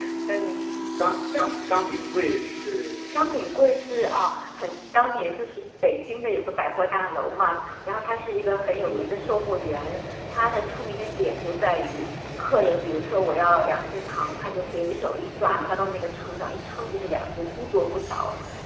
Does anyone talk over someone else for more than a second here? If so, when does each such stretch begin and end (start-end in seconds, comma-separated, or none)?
none